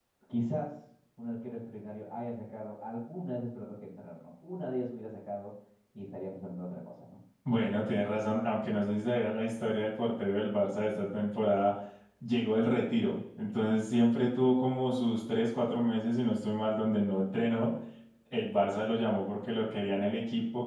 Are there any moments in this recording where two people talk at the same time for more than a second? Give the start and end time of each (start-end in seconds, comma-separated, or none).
none